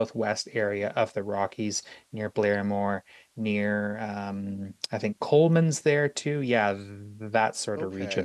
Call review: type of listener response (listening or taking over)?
taking over